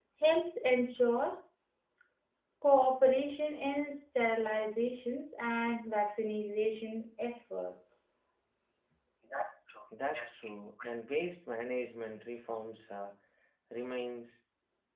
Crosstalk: none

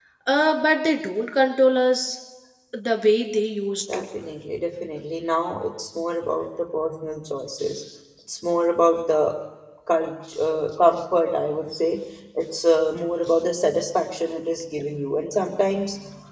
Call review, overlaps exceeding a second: none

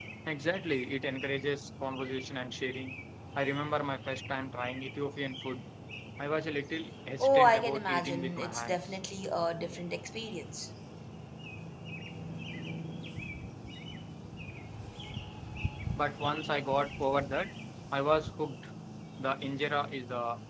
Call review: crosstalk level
present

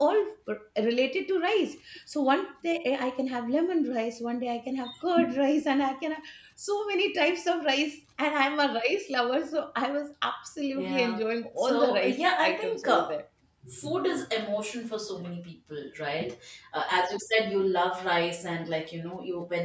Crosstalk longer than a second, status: present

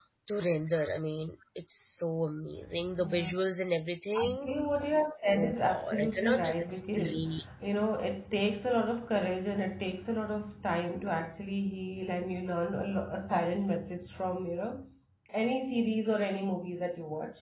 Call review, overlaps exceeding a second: present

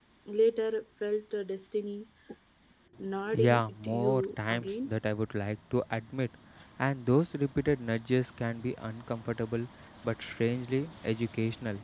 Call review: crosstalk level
present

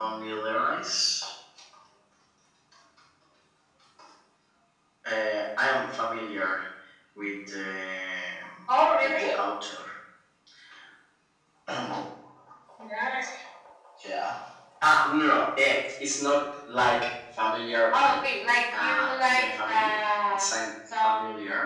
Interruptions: present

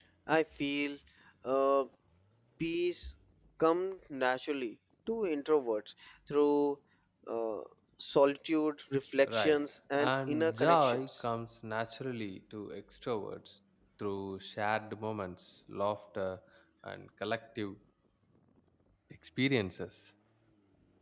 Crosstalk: present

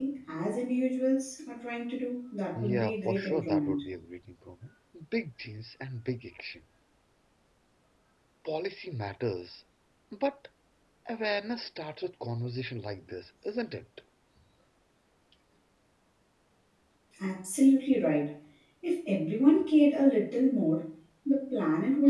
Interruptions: present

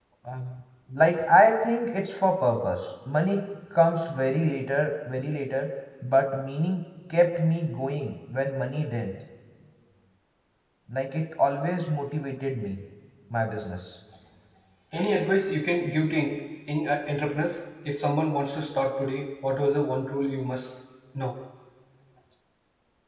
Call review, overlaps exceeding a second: none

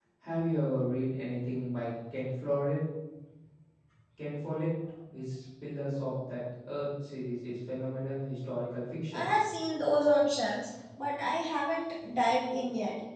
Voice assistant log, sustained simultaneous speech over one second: none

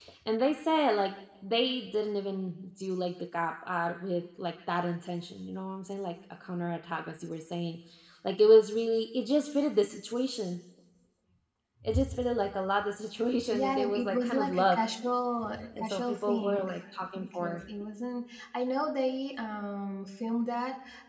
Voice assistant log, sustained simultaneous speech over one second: present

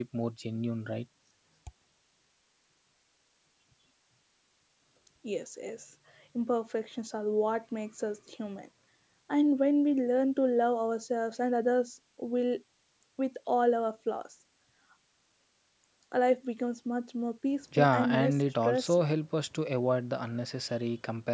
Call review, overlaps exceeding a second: present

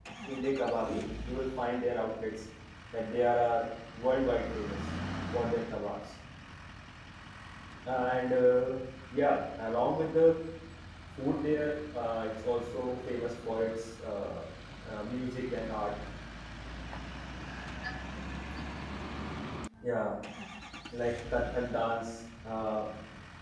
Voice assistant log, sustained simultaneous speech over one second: none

